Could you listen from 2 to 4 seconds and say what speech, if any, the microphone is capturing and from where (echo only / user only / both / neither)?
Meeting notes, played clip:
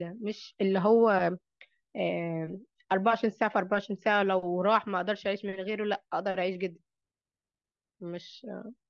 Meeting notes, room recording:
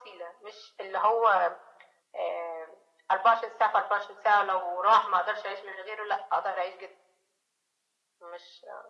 echo only